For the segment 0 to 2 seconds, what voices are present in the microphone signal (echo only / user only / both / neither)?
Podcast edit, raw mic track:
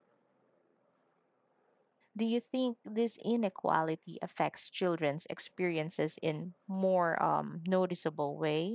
neither